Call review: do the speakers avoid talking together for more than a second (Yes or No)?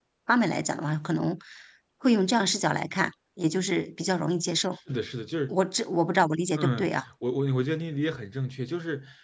Yes